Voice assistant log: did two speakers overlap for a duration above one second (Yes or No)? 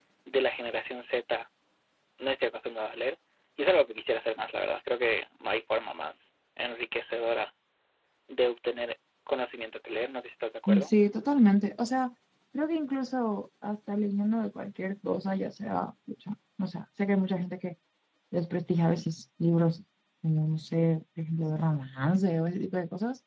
No